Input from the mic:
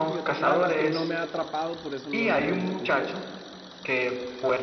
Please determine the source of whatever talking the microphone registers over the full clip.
both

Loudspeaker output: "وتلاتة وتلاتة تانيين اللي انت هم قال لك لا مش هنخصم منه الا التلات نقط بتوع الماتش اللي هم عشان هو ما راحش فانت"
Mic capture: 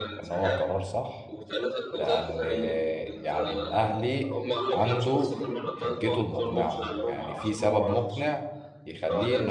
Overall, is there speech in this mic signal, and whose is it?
both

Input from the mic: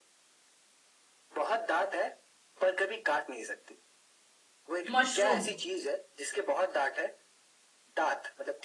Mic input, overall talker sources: both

